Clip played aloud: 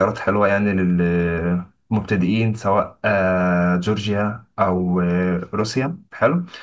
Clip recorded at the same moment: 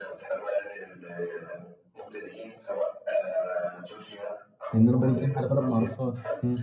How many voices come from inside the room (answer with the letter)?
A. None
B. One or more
B